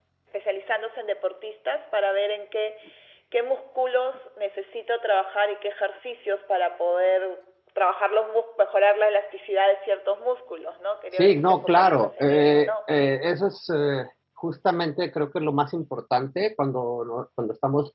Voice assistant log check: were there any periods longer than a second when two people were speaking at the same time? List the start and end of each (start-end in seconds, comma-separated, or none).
11.1-12.7